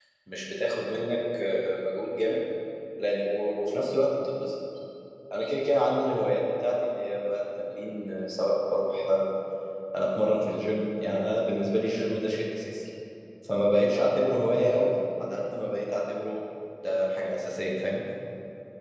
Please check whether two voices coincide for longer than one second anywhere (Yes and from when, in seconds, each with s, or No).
No